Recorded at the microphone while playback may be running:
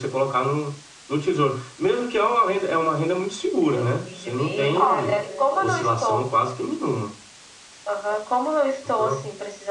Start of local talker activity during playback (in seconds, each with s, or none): 3.7 s